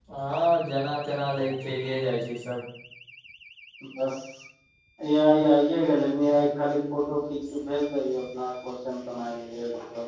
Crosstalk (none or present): none